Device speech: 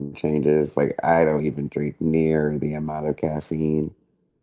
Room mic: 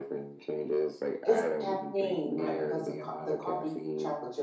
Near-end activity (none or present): present